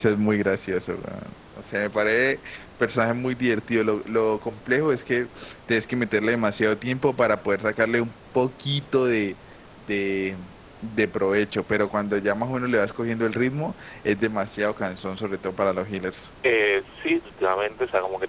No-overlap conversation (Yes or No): Yes